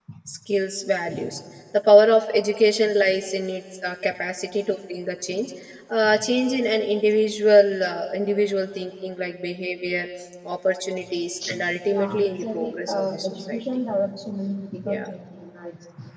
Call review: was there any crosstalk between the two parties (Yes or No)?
Yes